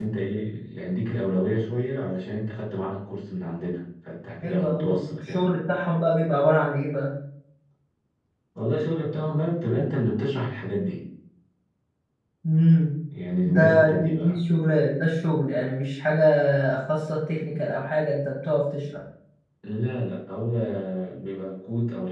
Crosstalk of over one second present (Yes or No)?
Yes